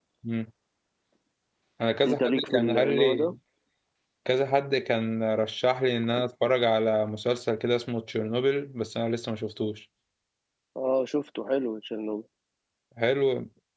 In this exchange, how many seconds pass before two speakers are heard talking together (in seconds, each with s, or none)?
2.0 s